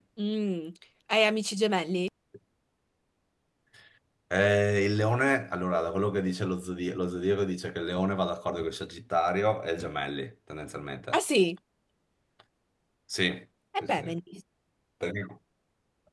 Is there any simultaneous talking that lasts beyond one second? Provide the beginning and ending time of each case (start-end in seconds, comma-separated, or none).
none